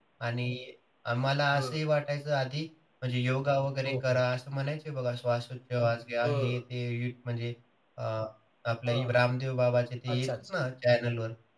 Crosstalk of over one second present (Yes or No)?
No